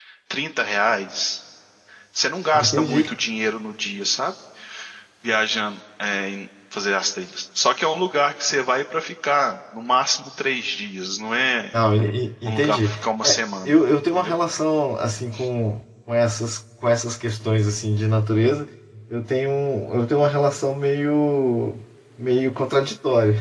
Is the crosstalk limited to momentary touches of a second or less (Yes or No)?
Yes